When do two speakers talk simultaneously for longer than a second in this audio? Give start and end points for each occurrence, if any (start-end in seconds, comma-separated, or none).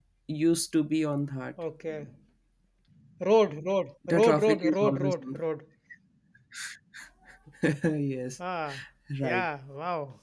4.1-5.4